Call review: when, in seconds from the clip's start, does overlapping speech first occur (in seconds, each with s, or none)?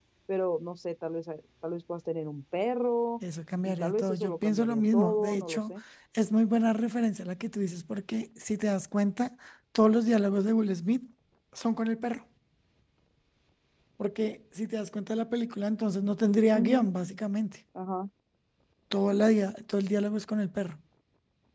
3.6 s